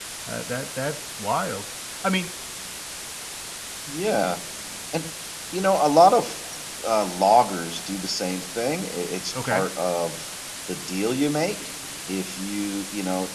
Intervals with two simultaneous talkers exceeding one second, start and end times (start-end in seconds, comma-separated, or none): none